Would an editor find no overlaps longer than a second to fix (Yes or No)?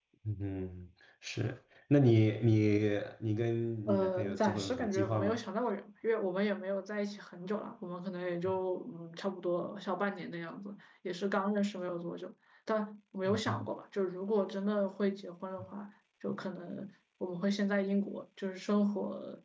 No